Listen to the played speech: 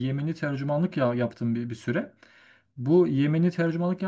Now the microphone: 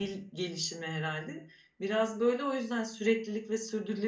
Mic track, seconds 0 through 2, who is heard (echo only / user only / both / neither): user only